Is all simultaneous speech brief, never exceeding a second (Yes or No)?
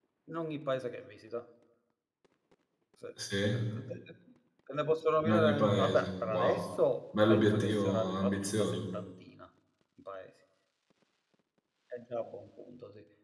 No